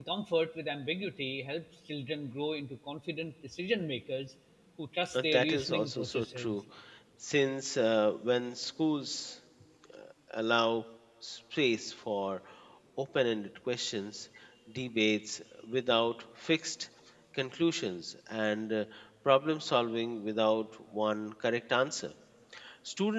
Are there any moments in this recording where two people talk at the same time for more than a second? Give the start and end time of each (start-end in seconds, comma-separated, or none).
5.1-6.6